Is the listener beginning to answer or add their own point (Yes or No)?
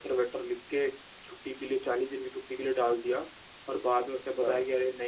No